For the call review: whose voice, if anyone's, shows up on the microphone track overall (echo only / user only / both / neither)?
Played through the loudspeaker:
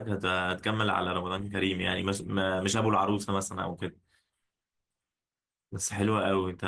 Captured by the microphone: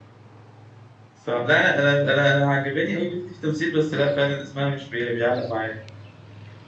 user only